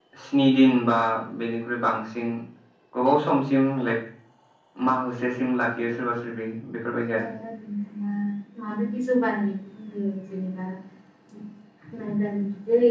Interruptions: none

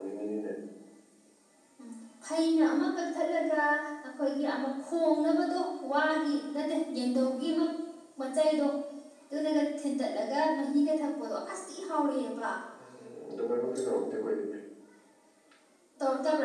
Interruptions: none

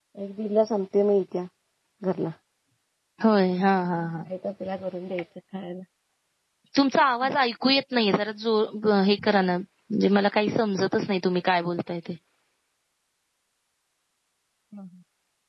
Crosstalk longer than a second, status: none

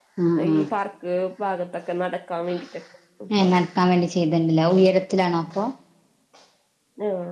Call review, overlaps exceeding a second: none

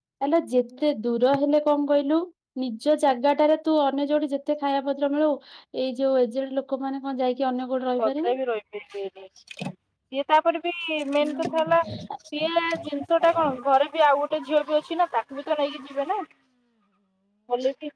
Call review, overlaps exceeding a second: none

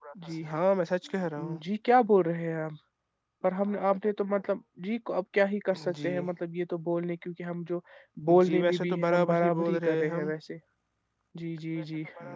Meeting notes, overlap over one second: present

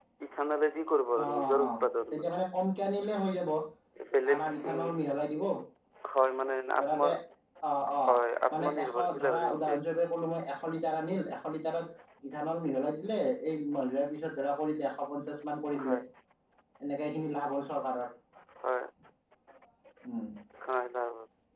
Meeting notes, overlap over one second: present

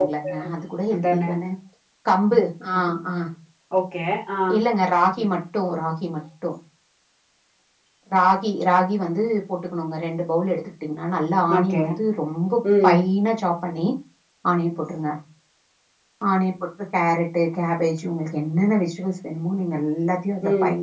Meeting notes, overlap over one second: none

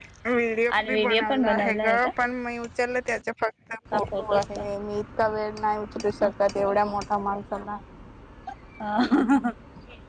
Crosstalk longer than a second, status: present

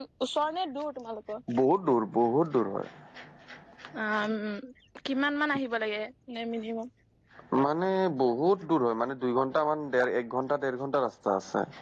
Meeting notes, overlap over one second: none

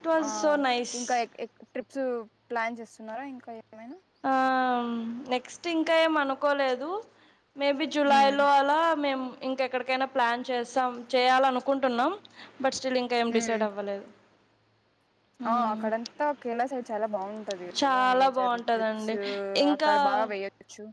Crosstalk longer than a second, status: present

